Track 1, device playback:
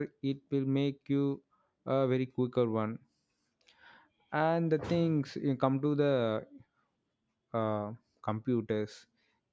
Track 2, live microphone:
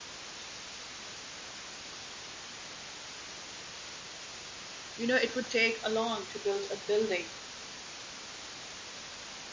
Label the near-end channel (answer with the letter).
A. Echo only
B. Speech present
B